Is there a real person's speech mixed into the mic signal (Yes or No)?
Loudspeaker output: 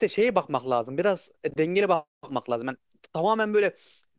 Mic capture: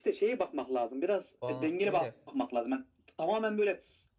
Yes